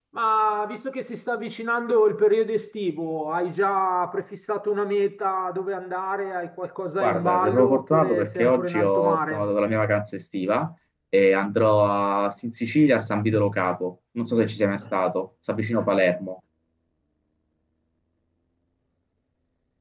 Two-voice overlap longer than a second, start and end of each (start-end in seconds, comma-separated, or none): 7.0-9.5